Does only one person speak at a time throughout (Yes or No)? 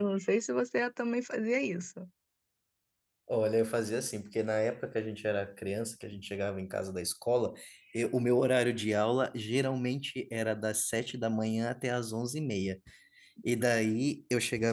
Yes